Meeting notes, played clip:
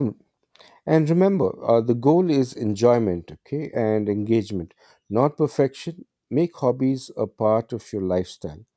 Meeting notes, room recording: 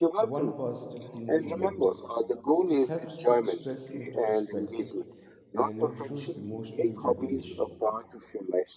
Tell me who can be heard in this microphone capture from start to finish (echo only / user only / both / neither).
both